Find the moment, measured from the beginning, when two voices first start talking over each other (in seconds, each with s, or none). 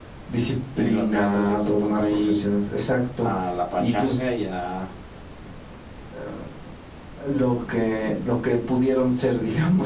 0.8 s